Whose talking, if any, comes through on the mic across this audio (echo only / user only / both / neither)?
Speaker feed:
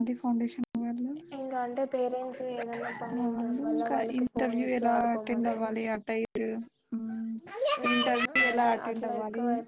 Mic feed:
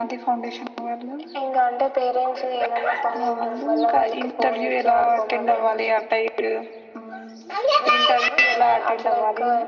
echo only